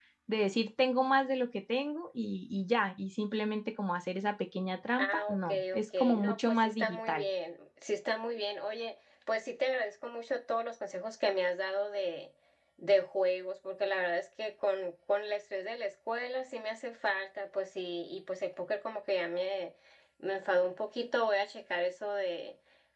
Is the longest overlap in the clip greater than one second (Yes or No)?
Yes